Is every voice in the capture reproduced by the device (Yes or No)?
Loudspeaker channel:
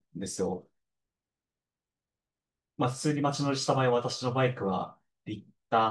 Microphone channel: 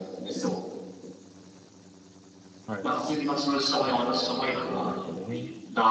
No